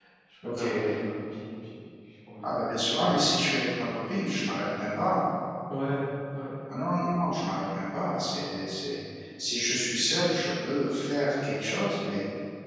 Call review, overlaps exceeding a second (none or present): none